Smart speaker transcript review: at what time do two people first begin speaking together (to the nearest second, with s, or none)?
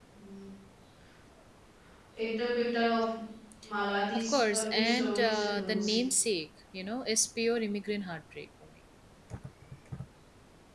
4 s